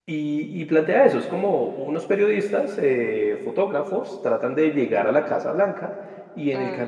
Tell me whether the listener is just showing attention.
Yes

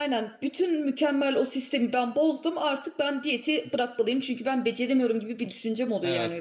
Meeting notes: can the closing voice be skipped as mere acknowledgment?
No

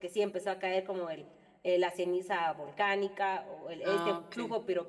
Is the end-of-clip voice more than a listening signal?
No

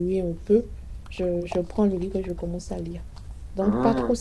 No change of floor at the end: Yes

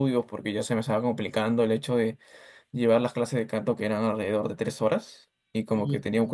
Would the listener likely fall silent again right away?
Yes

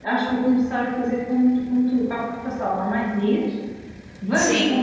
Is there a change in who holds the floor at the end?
No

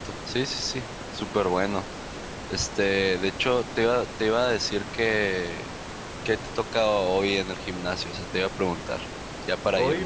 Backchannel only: No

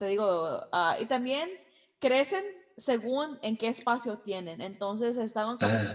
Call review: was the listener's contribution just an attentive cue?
Yes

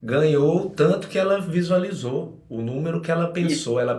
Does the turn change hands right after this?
No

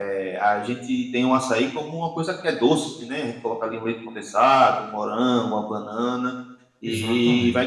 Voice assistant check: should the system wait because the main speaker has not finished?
Yes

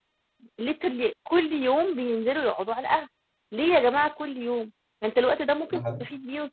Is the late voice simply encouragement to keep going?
Yes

